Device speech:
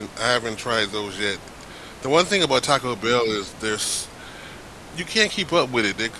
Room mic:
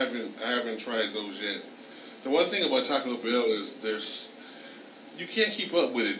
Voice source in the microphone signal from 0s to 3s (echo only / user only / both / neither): echo only